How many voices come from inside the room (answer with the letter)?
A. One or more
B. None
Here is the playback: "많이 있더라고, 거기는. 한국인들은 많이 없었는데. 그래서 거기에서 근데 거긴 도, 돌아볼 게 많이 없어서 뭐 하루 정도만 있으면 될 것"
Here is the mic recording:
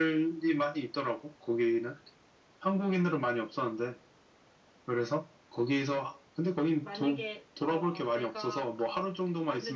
A